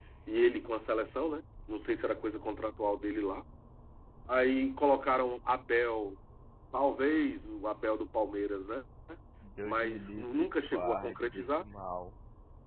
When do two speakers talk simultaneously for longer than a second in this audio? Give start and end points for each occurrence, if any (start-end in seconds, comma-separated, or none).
9.6-11.6